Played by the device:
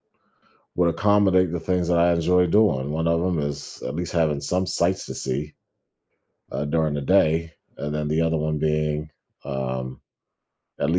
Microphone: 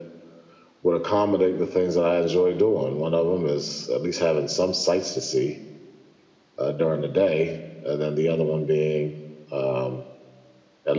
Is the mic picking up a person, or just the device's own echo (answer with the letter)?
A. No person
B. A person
A